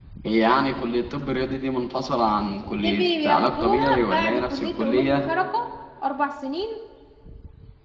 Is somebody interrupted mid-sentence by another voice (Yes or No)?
Yes